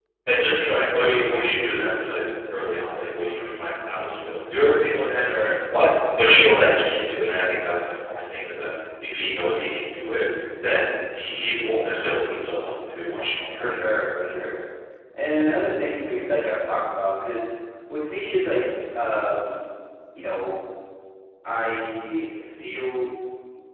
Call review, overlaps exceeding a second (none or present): none